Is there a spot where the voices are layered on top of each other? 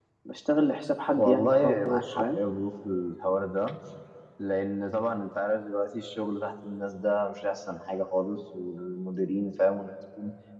Yes, from 1.2 s

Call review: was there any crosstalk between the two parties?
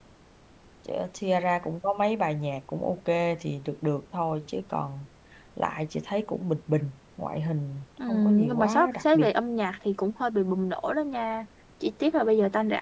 Yes, from 8.0 s

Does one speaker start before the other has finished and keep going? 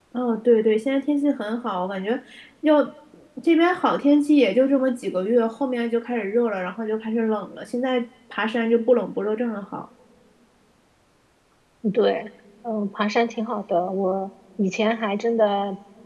No

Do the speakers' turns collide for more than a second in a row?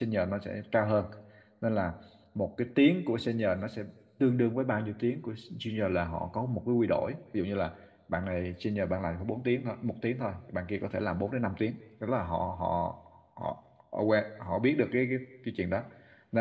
No

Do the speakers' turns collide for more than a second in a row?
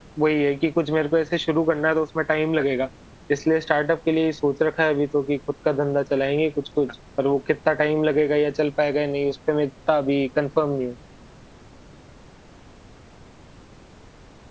No

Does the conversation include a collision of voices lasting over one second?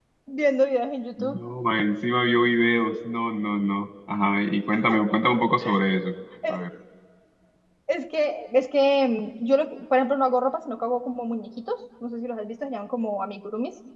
No

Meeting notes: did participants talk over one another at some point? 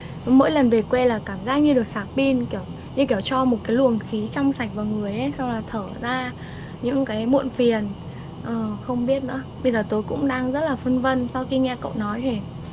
No

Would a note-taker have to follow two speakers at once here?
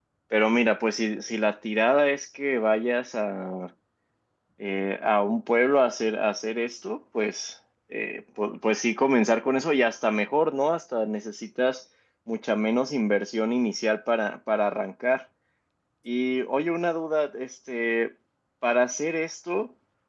No

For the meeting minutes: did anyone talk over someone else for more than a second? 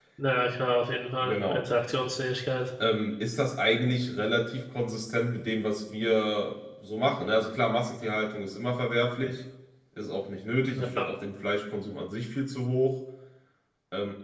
No

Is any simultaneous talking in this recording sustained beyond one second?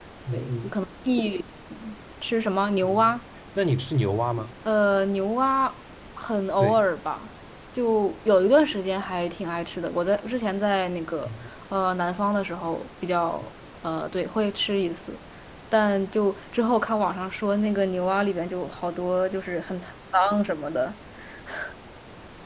No

